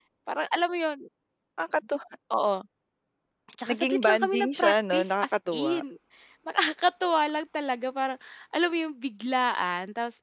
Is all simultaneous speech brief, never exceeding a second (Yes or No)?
No